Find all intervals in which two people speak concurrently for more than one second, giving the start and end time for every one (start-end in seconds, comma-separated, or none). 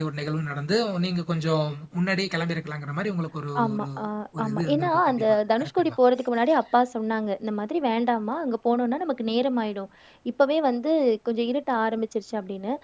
4.4-6.0